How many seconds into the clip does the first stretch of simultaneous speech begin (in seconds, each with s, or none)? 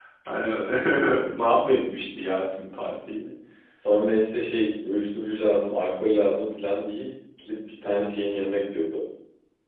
none